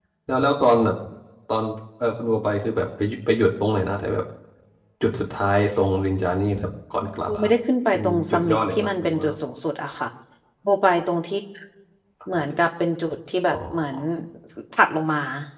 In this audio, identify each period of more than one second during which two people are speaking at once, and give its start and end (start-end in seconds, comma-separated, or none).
7.9-9.2